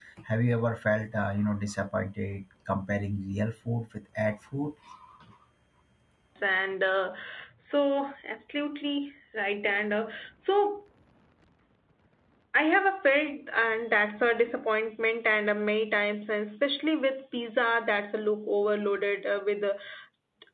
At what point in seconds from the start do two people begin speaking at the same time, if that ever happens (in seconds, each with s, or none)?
none